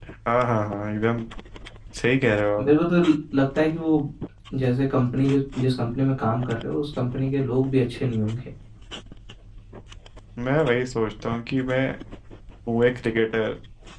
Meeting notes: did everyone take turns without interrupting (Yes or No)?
Yes